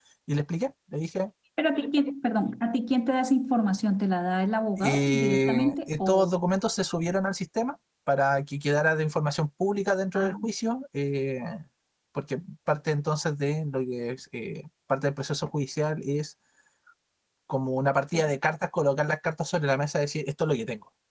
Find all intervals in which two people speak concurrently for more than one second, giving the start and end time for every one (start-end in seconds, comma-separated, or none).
4.8-6.3